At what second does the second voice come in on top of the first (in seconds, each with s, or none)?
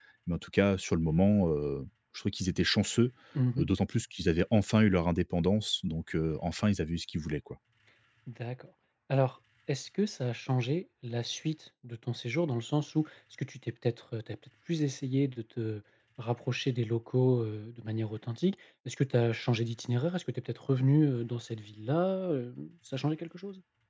none